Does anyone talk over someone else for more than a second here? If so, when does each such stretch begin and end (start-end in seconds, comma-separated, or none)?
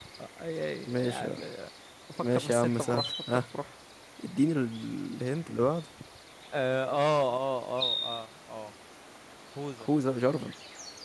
2.2-3.4